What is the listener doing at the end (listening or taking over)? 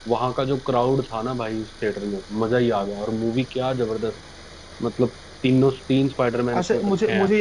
taking over